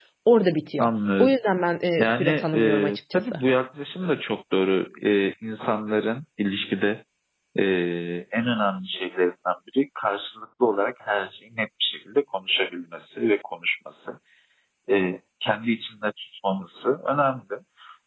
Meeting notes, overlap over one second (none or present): present